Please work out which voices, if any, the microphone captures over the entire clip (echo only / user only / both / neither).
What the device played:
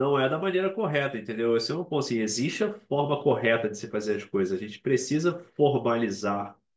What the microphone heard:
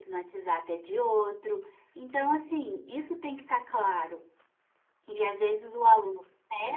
user only